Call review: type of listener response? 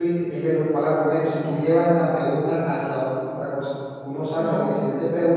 listening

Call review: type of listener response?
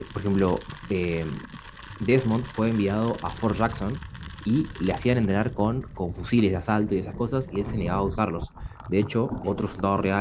listening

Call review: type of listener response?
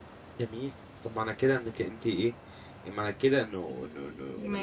taking over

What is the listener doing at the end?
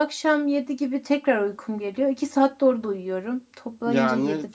taking over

